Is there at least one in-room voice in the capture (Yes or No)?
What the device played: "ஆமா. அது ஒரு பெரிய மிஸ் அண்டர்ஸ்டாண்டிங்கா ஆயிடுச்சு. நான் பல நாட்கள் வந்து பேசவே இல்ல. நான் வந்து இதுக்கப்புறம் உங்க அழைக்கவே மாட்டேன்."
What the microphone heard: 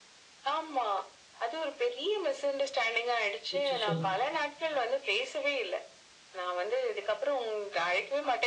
Yes